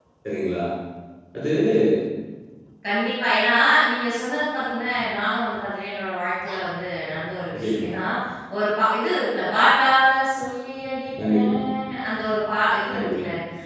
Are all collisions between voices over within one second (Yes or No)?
Yes